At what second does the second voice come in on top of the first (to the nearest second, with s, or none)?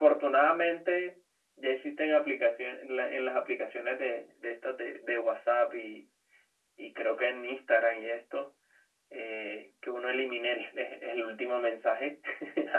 none